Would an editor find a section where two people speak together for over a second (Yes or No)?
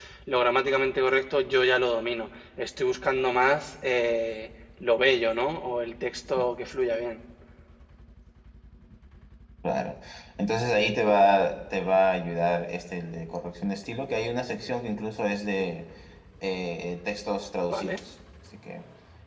No